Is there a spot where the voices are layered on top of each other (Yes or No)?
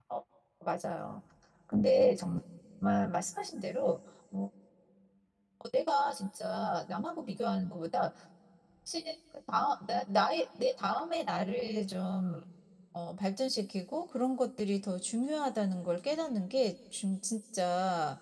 No